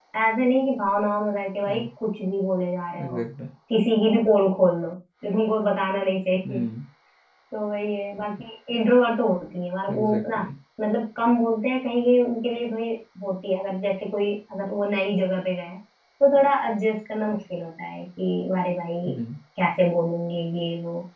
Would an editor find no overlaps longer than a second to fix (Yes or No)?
Yes